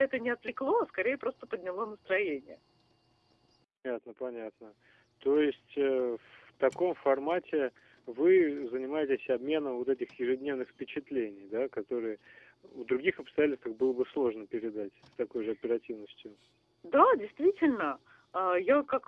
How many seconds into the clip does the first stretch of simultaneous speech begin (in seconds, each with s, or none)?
none